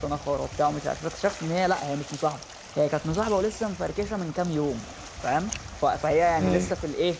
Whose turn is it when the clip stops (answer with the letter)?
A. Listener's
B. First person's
B